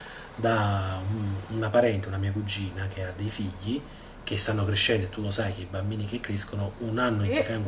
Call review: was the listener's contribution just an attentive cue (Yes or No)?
Yes